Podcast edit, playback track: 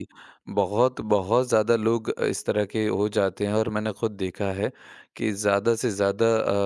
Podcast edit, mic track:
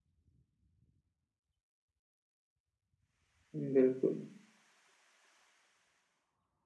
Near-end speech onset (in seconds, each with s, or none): 3.5 s